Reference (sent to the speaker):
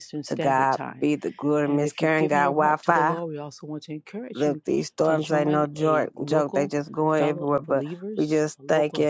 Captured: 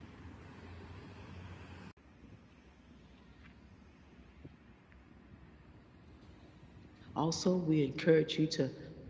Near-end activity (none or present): present